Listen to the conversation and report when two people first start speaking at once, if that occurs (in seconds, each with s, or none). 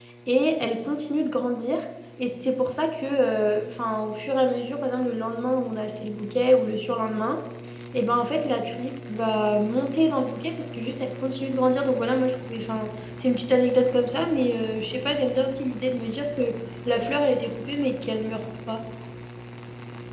none